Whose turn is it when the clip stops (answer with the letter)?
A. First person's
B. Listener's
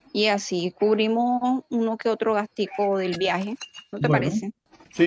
B